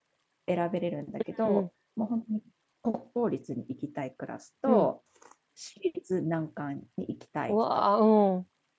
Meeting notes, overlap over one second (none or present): none